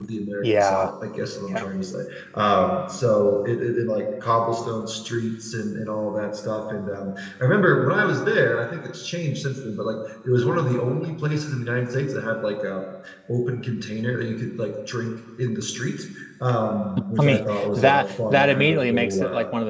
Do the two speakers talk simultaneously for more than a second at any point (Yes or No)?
Yes